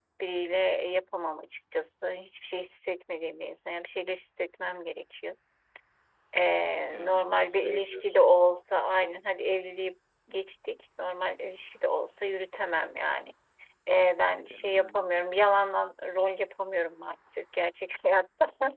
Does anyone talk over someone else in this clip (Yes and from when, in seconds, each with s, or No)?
Yes, from 6.9 s